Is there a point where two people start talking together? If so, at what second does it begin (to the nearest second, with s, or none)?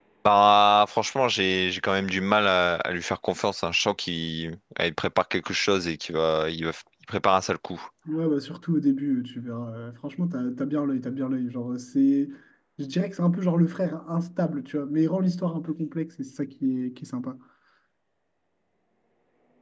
none